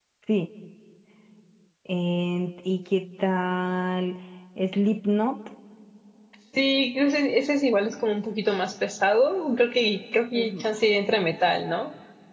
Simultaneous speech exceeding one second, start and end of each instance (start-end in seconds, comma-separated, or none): none